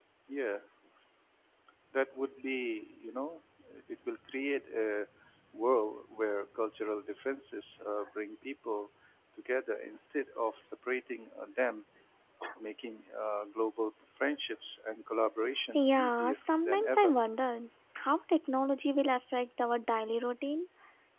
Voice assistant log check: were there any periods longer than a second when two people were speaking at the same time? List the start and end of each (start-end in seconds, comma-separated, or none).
15.7-17.1